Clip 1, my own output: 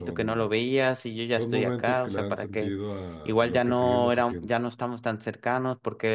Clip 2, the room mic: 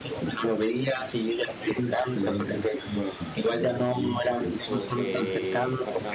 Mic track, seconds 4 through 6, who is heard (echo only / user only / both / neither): both